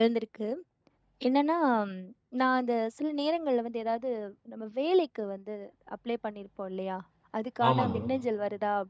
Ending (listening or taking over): listening